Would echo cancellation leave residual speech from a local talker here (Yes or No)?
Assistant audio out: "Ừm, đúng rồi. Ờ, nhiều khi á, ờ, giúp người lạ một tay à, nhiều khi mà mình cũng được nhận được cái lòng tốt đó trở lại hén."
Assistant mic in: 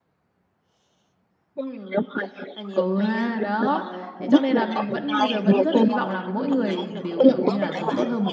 Yes